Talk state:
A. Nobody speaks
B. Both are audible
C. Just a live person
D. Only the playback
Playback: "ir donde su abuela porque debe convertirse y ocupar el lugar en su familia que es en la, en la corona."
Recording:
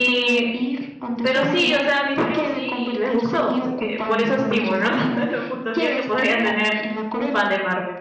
B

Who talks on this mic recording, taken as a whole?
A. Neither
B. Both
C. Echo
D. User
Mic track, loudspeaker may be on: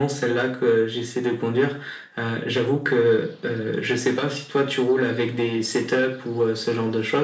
C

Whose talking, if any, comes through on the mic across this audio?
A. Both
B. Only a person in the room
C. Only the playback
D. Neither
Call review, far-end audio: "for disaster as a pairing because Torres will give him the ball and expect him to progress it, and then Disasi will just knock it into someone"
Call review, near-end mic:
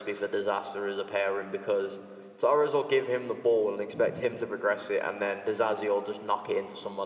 C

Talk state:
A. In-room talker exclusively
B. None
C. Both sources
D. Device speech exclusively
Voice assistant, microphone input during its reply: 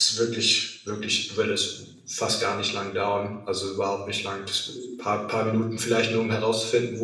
A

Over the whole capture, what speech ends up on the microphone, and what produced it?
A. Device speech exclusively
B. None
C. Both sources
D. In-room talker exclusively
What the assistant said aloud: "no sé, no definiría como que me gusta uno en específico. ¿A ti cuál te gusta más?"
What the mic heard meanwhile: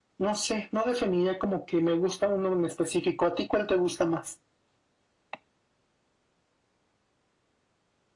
A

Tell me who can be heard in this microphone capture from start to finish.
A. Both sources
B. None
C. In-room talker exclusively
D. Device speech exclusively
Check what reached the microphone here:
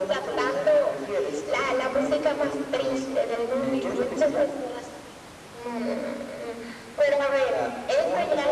D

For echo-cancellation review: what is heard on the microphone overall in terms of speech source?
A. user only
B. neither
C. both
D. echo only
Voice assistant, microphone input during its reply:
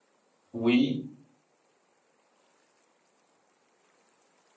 A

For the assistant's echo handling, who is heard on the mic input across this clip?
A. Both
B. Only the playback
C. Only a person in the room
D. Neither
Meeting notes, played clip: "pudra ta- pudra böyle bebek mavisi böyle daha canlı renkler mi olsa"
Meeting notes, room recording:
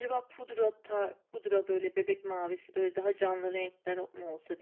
B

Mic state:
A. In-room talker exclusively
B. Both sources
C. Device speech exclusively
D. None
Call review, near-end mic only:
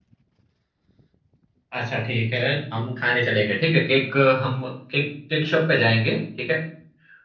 A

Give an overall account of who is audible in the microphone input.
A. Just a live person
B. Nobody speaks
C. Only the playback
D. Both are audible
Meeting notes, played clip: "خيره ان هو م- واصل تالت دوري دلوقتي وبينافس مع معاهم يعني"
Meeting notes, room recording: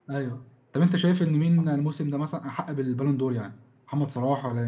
A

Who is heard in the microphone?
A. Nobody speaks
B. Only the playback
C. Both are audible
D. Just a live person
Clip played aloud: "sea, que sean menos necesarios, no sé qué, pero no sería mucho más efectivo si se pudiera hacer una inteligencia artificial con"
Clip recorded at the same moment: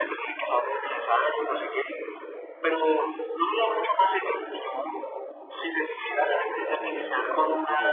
C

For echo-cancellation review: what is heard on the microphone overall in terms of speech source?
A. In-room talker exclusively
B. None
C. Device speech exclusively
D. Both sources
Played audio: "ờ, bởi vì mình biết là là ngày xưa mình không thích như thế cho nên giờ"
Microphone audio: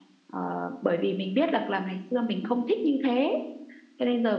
C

